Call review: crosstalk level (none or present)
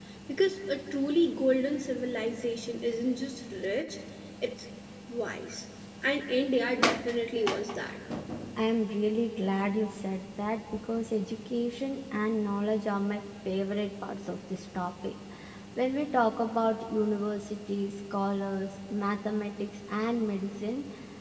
none